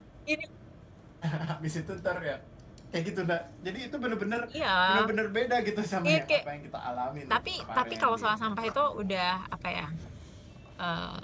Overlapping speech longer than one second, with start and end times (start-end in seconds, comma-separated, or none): 7.3-9.1